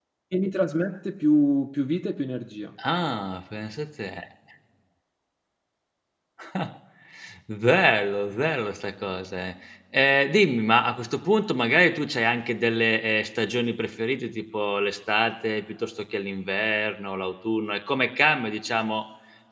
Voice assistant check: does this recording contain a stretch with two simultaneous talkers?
No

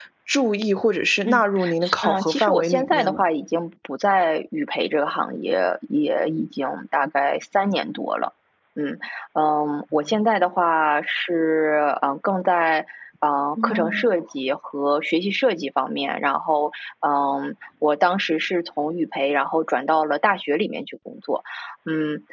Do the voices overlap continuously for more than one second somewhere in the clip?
Yes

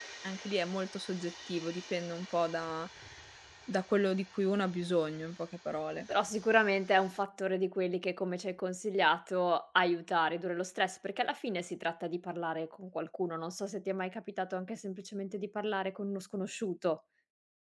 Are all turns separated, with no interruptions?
Yes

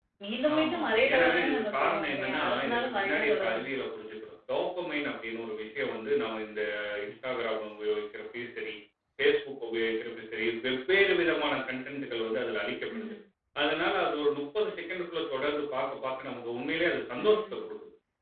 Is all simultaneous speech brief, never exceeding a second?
No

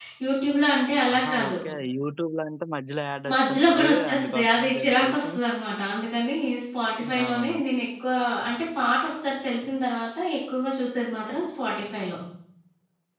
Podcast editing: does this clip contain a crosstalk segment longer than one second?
Yes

